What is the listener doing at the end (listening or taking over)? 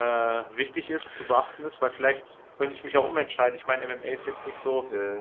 listening